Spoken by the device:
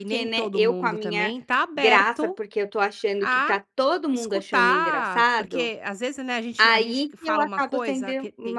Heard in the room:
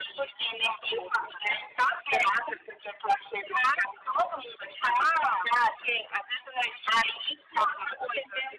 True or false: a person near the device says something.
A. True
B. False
B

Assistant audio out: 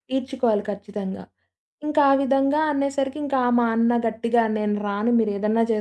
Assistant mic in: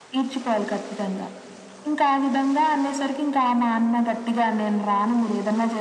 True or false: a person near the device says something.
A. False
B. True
A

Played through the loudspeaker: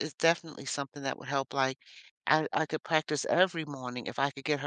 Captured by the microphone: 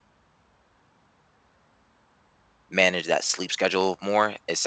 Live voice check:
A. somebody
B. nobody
A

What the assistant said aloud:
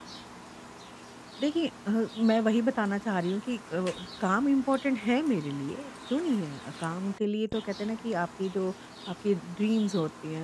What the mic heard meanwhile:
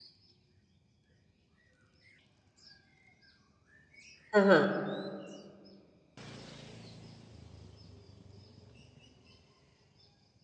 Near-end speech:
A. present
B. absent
A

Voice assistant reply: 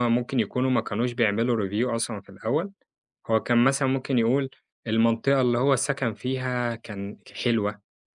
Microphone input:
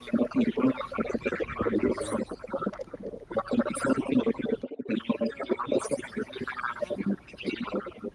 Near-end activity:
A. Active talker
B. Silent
A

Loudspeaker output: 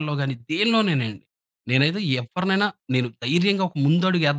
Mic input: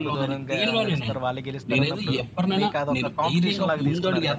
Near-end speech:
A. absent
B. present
B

